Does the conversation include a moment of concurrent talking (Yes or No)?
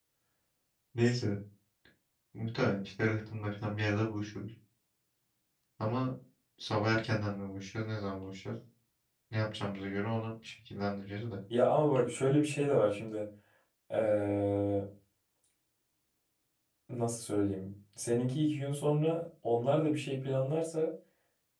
No